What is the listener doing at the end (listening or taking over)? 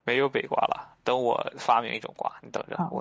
taking over